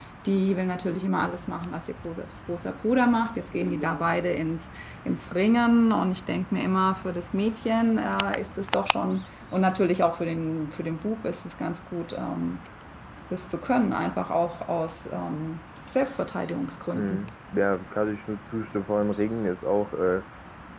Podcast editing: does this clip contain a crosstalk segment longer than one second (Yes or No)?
No